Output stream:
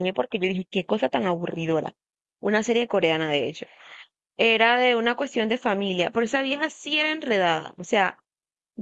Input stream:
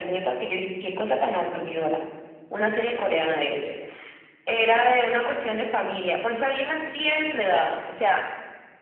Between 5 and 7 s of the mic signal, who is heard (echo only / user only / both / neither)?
echo only